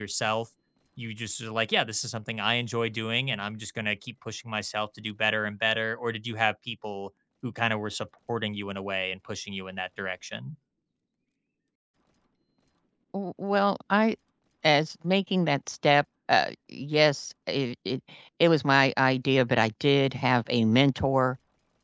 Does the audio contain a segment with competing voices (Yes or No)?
No